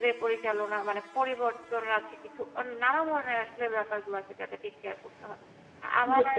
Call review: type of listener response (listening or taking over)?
listening